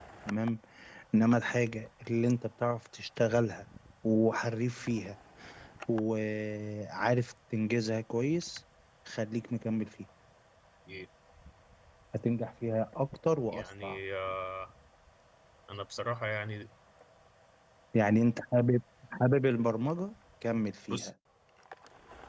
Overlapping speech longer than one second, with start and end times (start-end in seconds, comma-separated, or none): none